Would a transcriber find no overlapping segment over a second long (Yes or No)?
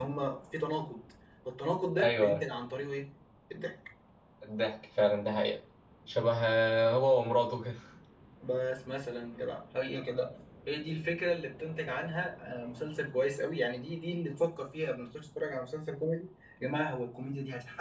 Yes